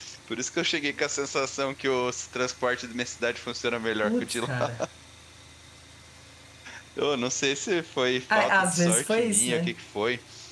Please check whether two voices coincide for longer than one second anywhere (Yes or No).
Yes